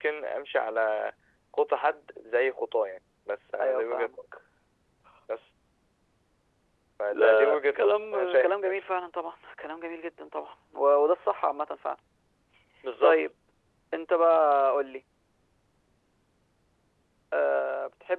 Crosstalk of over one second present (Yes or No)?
Yes